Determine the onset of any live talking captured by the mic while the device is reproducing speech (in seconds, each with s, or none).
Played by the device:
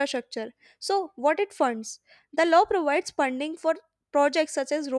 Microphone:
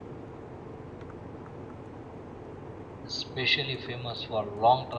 3.0 s